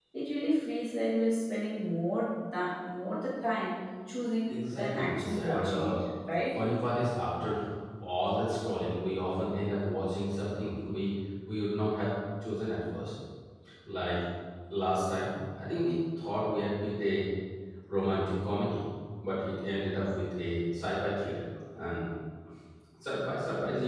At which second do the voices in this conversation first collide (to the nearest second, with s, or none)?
4 s